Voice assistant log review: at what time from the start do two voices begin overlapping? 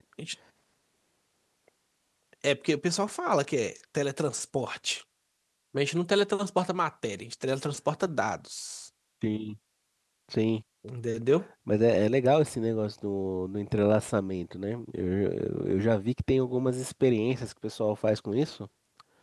none

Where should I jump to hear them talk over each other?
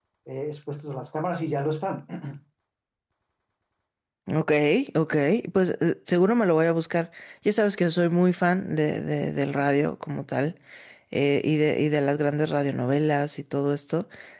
none

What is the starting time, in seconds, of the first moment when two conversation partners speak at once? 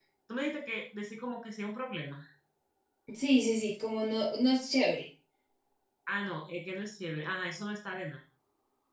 none

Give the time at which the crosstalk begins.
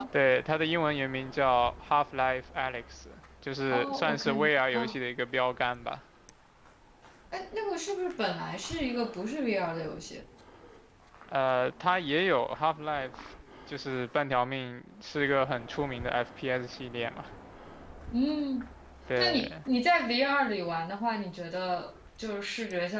3.7 s

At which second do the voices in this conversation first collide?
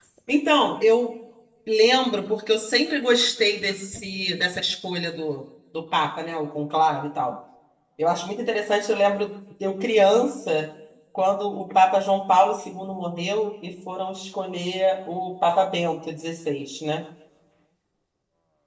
none

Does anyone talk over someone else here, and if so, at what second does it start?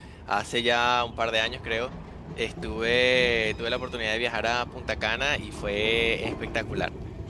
none

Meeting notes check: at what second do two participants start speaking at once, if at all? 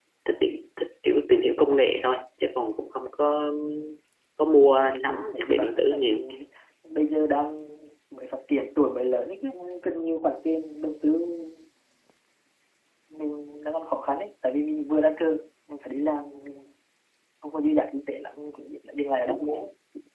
4.9 s

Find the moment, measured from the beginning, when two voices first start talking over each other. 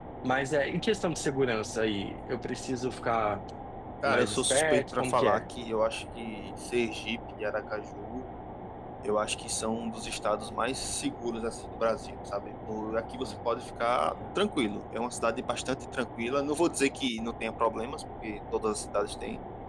4.1 s

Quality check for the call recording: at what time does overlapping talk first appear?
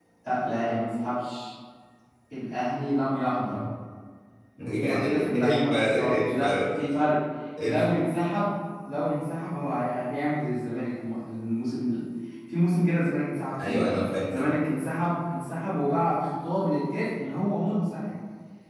4.8 s

